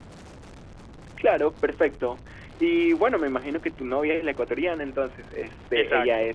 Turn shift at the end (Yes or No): No